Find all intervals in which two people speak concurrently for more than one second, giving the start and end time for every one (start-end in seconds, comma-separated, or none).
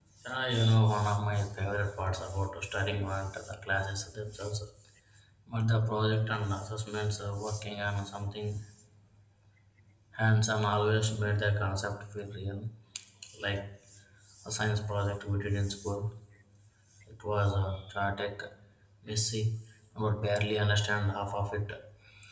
none